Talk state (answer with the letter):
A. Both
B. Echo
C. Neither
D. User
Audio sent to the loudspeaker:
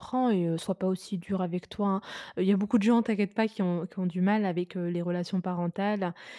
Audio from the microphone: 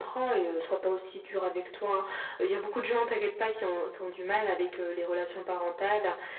B